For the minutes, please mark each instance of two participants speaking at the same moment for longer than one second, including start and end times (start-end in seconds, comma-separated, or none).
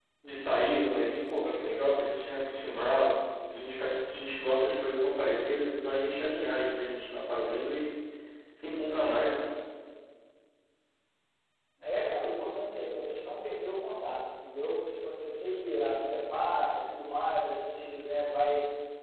none